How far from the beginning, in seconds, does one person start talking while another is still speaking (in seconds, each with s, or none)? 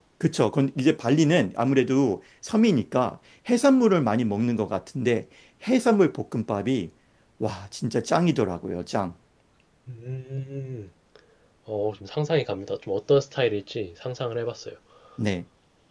none